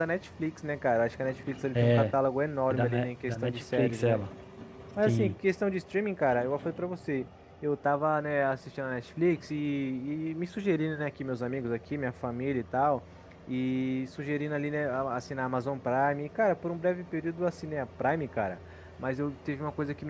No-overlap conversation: No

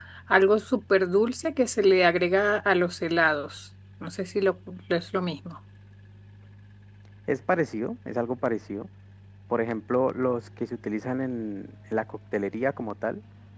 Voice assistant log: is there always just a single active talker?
Yes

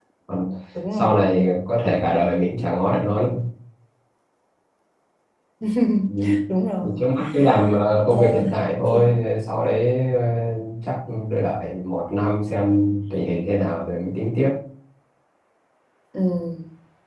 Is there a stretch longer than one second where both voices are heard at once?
No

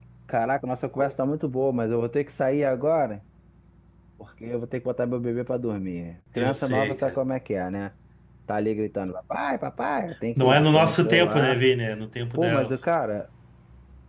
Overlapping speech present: Yes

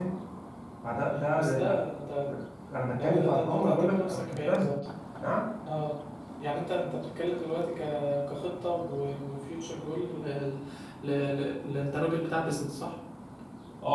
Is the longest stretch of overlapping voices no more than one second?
No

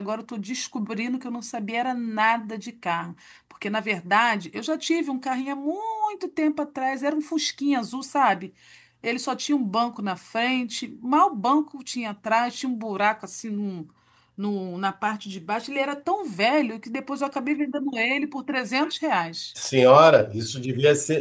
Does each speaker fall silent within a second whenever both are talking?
Yes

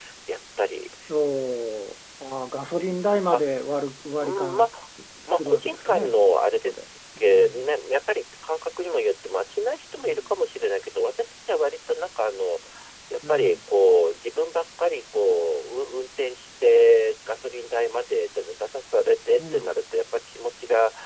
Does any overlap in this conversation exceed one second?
Yes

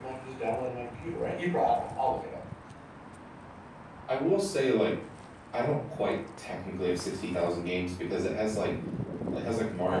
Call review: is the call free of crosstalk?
Yes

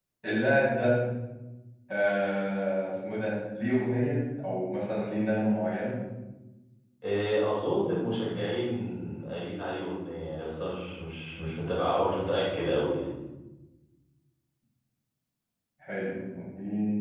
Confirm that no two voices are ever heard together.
Yes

